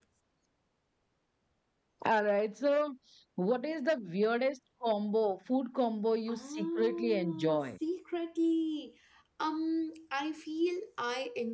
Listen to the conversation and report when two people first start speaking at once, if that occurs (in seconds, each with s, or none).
6.3 s